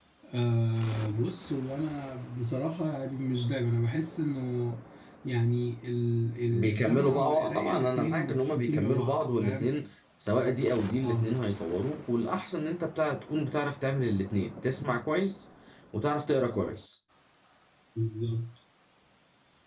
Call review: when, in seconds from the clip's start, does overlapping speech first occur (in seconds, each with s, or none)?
6.5 s